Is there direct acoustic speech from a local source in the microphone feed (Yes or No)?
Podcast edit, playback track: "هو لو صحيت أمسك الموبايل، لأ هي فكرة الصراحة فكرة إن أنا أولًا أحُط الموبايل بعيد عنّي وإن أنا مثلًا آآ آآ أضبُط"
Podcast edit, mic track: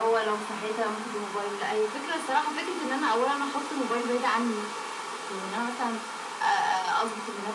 No